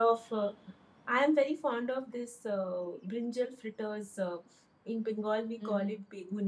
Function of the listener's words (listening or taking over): listening